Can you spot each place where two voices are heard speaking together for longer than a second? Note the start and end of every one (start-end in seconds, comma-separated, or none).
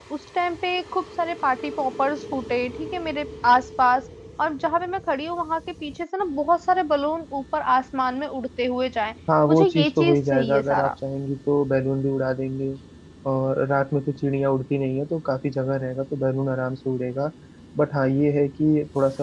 9.5-10.9